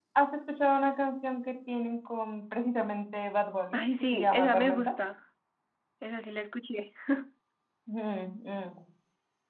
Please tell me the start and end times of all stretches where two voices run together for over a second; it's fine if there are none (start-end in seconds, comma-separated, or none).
3.7-4.9